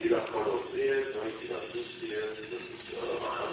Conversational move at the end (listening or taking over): listening